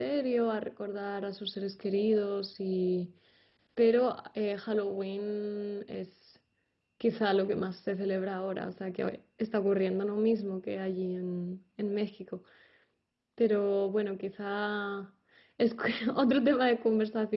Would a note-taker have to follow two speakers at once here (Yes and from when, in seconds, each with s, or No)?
No